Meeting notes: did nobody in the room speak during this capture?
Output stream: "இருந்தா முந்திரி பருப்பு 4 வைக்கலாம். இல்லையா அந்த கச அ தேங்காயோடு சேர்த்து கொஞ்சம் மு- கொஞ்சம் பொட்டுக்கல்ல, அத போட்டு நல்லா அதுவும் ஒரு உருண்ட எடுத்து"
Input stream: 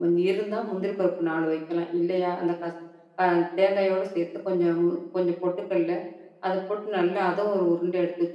Yes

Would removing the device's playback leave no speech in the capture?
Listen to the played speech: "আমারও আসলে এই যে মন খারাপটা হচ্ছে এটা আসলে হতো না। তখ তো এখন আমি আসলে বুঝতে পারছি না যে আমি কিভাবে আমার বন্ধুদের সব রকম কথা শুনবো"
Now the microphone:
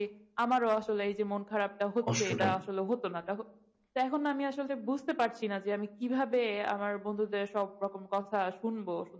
No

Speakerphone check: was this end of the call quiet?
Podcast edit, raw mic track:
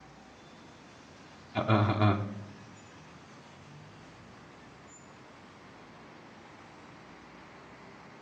No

